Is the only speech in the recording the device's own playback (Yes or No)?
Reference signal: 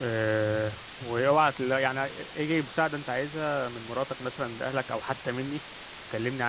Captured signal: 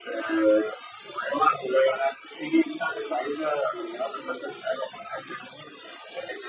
Yes